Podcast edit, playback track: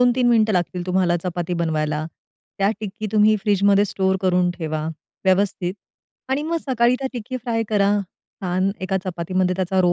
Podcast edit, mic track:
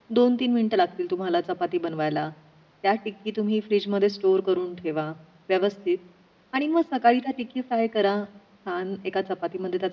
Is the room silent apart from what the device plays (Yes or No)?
Yes